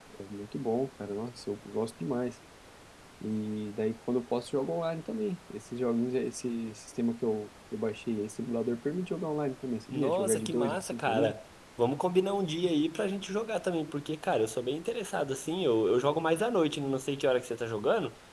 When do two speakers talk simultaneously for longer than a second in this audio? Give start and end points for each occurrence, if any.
9.9-11.3

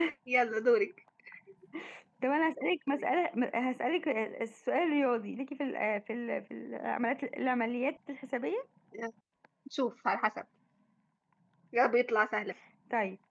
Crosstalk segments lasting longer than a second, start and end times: none

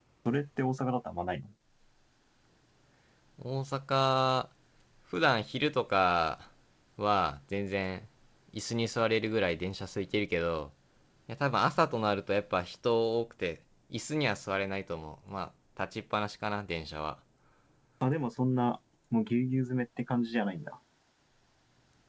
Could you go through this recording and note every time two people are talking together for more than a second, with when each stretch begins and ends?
none

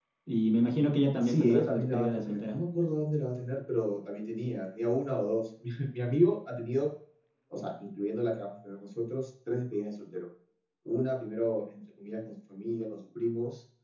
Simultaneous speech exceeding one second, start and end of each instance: 1.2-2.6

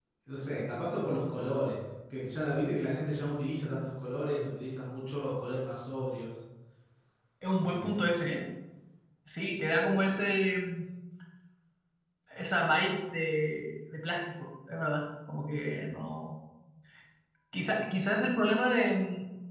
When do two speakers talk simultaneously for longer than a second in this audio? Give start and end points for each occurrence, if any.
none

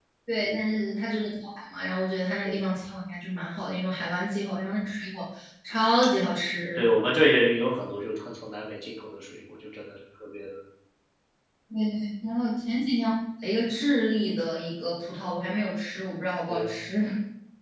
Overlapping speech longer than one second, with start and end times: none

